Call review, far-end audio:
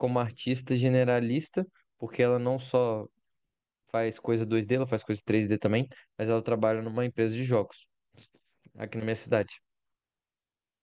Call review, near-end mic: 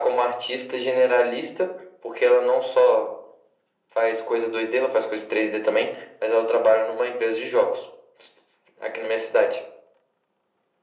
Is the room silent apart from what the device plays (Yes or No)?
Yes